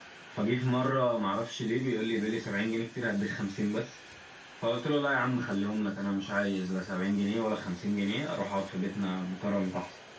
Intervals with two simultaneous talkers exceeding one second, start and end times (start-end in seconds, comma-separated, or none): none